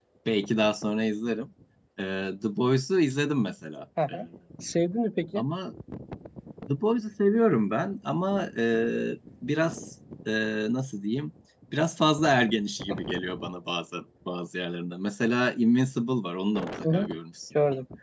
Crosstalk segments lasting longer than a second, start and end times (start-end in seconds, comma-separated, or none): none